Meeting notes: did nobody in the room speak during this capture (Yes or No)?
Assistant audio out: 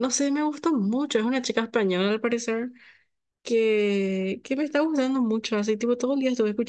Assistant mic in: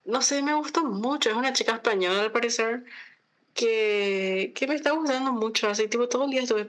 Yes